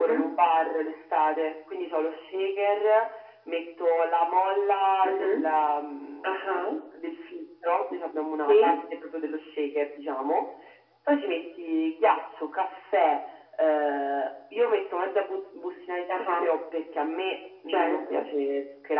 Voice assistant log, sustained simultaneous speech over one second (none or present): none